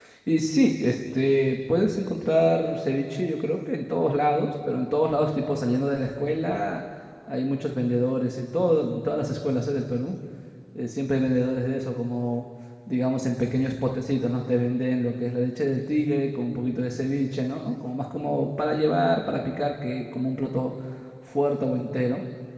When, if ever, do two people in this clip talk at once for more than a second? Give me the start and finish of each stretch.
none

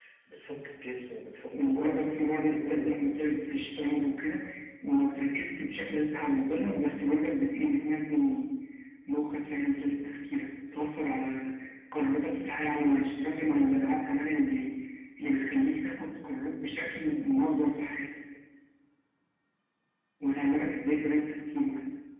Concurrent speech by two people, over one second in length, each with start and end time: 1.5-3.7

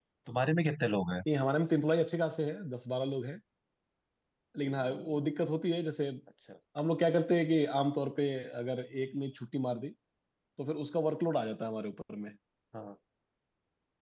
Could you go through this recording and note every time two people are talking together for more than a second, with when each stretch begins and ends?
none

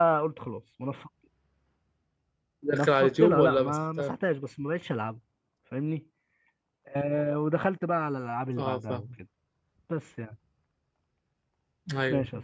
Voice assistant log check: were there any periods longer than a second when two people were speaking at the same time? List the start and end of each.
2.7-4.1

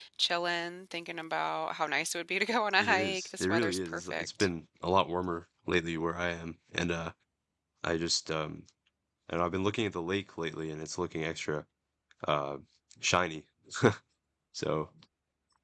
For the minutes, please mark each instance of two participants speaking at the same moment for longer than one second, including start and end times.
2.8-4.3

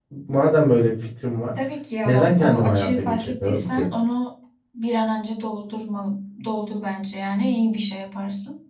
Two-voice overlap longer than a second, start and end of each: 2.0-3.9

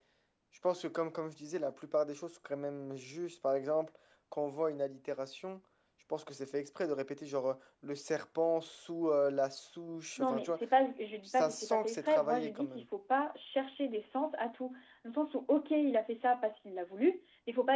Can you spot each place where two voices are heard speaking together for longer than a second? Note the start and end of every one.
11.2-12.8

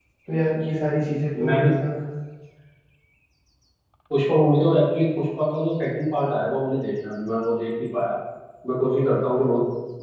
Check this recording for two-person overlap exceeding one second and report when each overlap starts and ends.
none

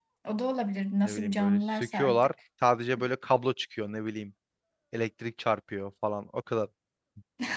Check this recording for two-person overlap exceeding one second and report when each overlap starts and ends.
1.0-2.3

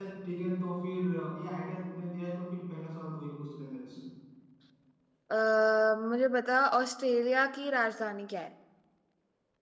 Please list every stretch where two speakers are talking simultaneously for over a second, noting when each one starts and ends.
none

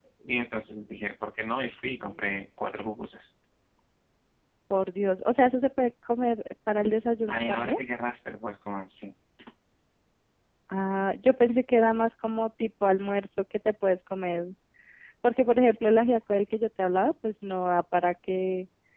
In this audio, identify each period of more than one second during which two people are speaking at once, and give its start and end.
none

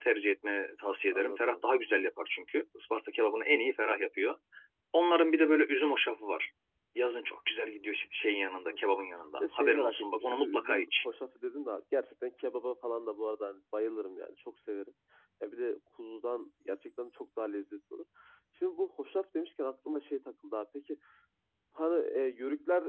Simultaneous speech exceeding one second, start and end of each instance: 9.4-11.1

